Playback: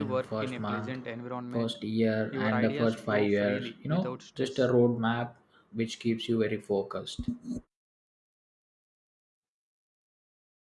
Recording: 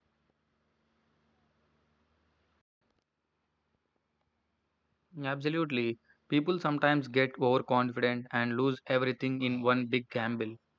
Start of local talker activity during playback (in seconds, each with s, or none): 5.2 s